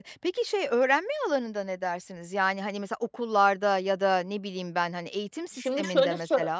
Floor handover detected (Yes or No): Yes